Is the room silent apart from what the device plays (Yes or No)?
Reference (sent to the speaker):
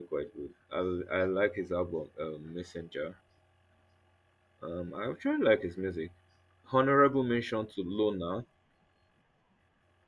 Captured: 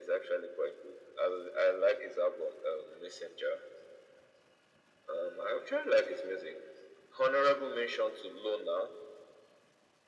Yes